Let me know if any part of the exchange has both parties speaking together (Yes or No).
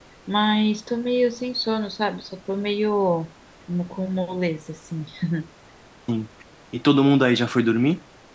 No